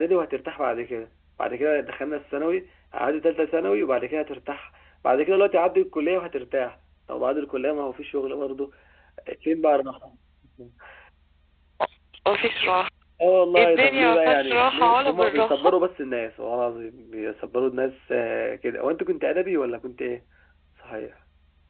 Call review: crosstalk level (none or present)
present